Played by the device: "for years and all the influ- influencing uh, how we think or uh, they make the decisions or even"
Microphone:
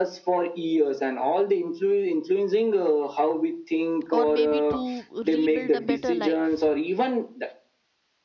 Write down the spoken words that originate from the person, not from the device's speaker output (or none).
or maybe to rebuild a better life